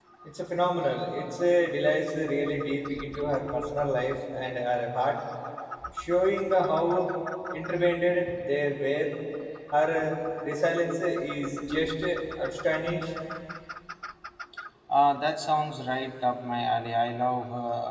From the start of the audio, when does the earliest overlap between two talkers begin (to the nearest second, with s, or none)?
none